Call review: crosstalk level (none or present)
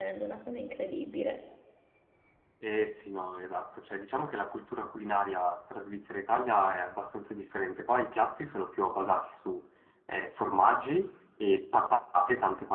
none